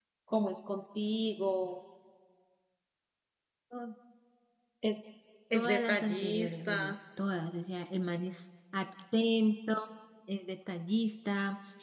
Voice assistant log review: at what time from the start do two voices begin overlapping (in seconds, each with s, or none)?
5.5 s